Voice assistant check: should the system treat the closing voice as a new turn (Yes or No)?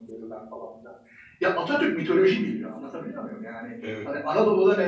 No